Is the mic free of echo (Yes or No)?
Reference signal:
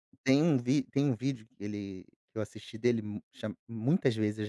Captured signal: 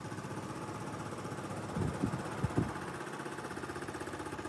Yes